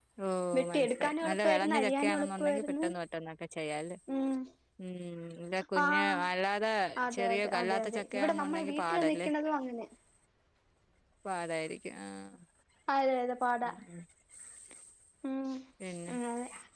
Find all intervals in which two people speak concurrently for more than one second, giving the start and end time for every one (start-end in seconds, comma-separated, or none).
0.6-2.8, 7.2-9.3